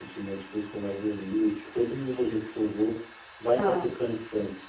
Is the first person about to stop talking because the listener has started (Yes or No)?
No